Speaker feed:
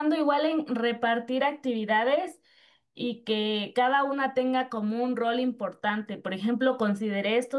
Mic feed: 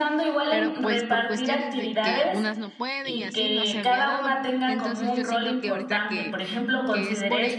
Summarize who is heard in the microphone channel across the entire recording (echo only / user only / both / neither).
both